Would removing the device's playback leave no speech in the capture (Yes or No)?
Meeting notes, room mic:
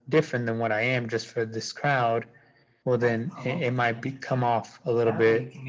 No